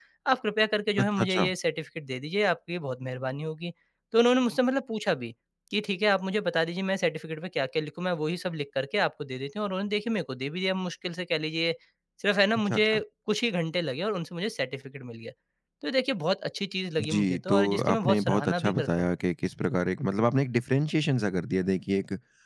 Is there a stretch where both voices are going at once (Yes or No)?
Yes